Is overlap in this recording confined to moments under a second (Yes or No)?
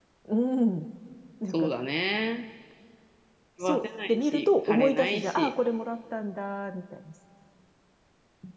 No